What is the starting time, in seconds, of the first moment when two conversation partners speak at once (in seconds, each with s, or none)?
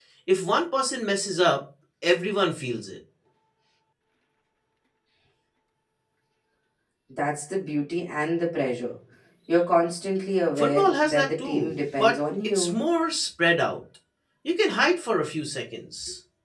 10.6 s